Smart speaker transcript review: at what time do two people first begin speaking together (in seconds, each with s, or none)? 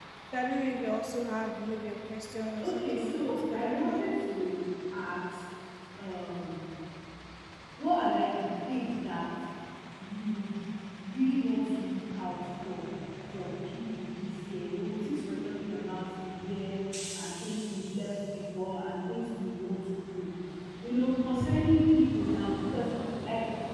2.6 s